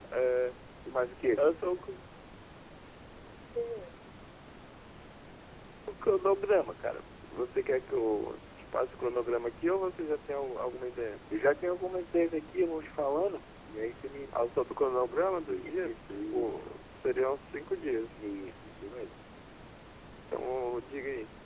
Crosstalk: present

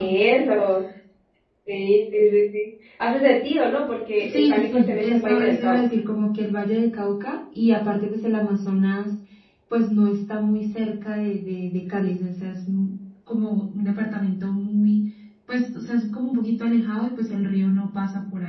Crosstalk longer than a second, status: present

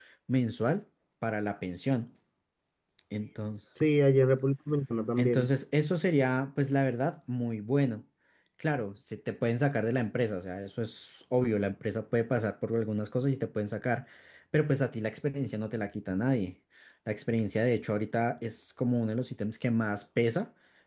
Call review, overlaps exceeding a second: none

